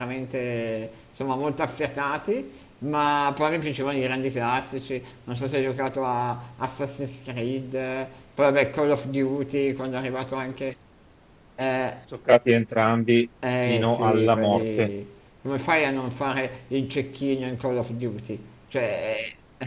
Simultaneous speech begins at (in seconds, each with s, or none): 13.7 s